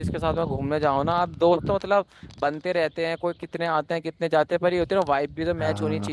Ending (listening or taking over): taking over